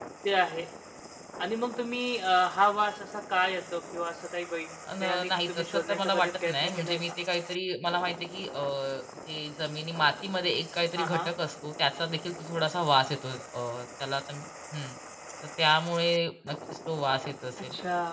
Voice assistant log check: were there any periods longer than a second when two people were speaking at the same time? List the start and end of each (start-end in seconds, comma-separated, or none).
5.0-7.0